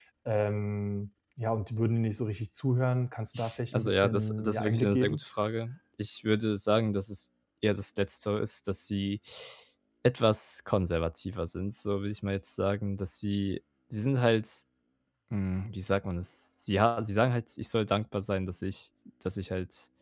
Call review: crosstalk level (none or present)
present